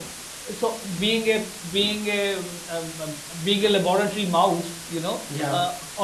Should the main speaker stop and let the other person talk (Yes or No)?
No